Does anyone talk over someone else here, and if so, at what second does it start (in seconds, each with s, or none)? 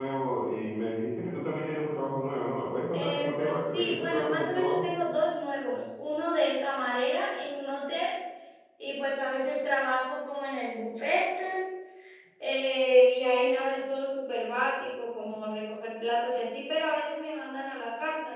2.9 s